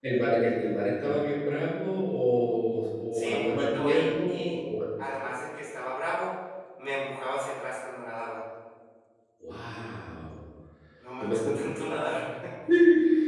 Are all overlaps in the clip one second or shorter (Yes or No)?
No